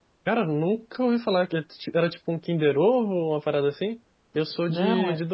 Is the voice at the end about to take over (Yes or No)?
No